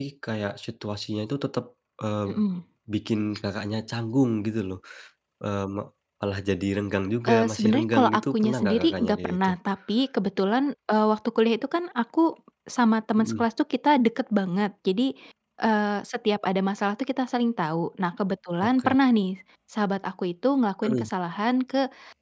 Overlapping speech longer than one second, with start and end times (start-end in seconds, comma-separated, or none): 7.3-9.6